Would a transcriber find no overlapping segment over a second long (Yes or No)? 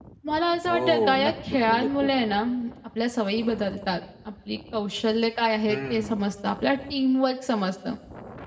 No